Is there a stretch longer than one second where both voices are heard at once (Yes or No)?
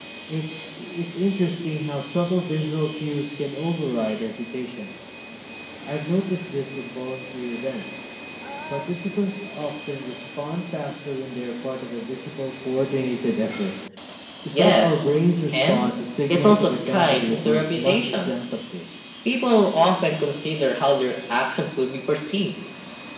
Yes